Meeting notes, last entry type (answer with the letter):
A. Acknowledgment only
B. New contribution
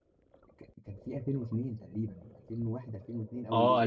B